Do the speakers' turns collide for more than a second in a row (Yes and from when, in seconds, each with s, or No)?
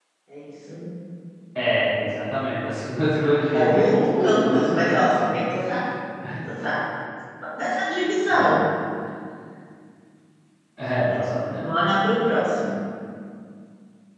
Yes, from 3.5 s